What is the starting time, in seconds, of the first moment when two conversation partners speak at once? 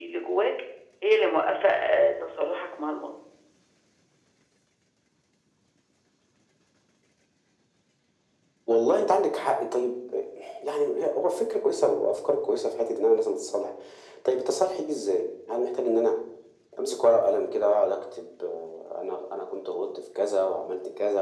none

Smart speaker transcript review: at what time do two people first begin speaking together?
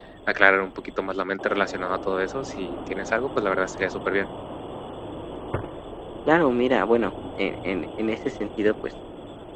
none

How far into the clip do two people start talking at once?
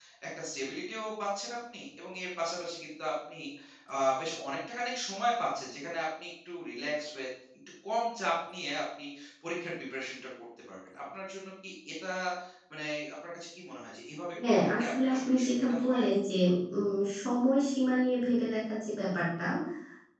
14.4 s

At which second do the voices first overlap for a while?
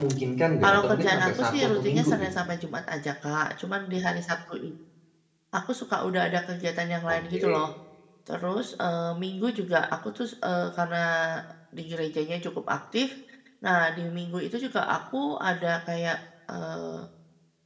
0.6 s

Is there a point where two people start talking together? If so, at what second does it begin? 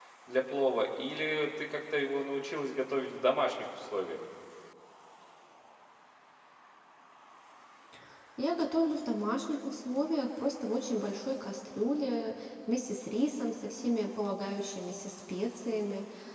none

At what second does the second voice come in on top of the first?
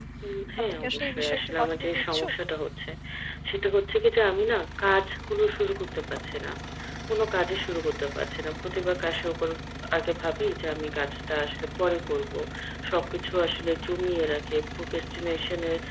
0.7 s

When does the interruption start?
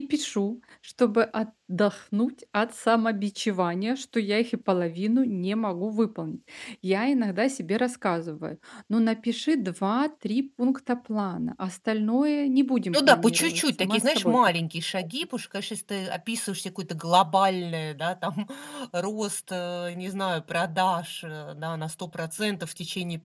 12.9 s

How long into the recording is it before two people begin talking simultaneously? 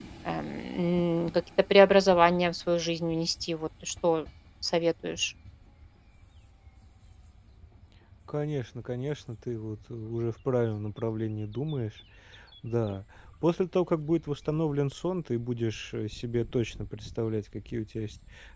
none

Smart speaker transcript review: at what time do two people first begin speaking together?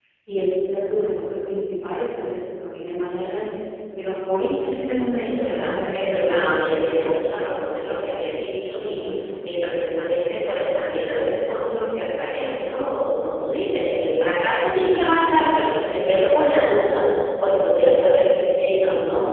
5.2 s

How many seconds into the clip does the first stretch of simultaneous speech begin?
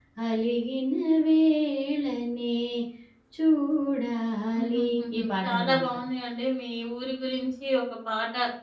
4.5 s

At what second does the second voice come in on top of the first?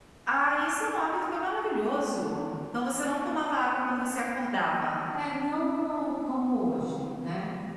none

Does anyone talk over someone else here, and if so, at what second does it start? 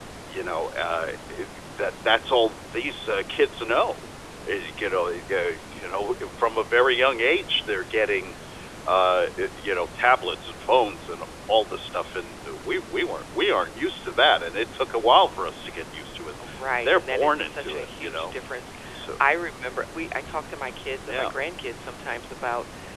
16.8 s

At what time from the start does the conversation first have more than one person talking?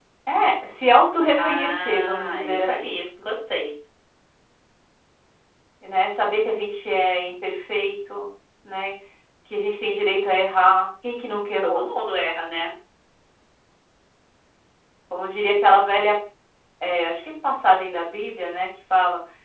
1.4 s

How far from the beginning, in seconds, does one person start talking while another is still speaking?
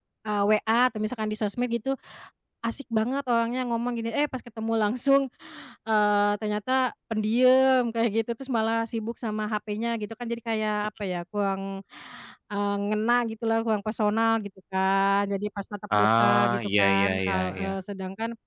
15.9 s

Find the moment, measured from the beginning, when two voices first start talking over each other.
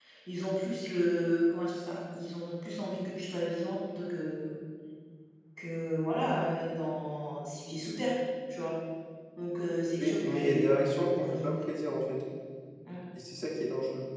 10.0 s

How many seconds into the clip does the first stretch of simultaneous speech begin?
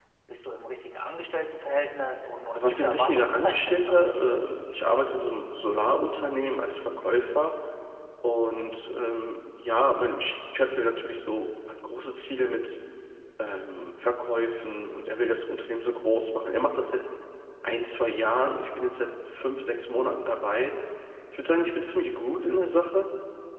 2.5 s

